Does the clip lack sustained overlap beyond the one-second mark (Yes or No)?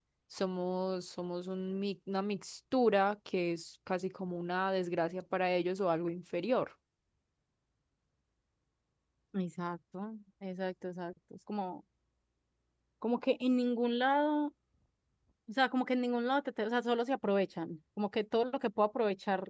Yes